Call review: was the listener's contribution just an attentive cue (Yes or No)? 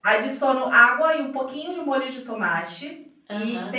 Yes